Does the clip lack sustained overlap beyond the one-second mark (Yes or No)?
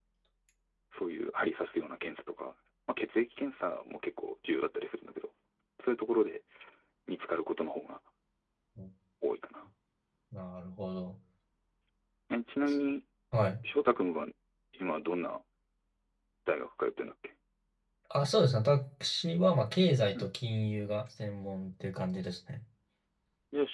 Yes